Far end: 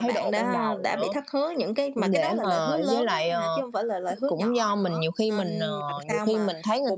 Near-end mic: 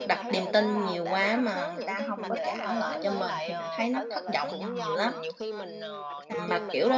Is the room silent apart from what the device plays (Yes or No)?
No